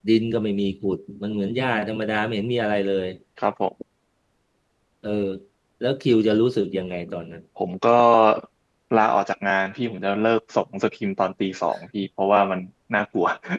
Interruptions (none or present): none